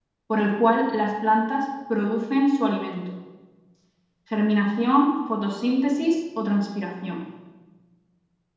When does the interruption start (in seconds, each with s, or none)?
none